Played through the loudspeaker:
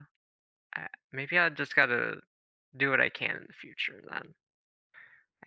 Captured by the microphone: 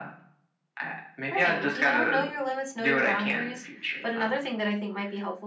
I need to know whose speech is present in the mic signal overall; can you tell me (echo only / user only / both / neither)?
both